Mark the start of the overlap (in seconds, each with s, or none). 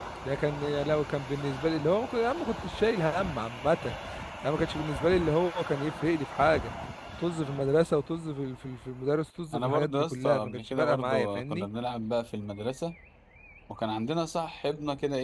9.5 s